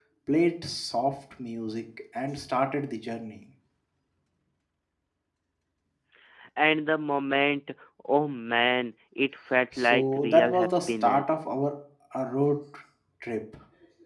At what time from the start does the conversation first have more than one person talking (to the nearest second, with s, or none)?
10 s